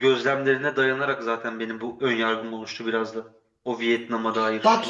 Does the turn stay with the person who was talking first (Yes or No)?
No